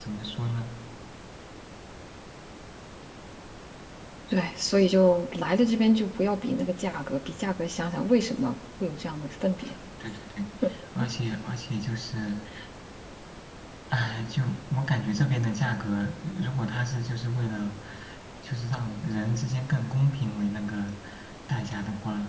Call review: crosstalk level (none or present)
none